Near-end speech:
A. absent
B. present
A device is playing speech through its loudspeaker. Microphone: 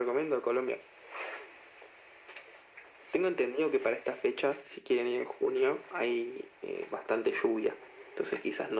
A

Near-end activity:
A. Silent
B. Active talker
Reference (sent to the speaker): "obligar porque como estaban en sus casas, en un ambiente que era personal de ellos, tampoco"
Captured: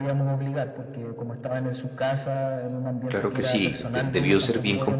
B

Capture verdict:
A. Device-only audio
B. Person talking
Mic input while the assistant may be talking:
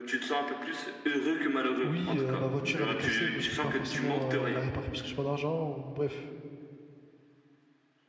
B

